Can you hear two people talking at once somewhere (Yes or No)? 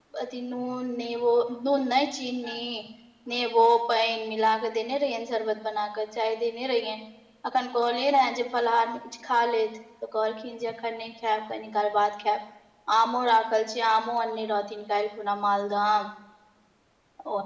No